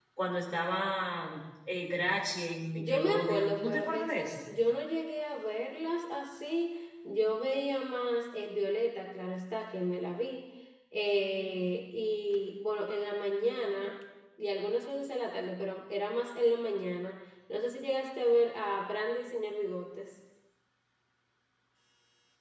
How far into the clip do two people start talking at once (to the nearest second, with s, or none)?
3 s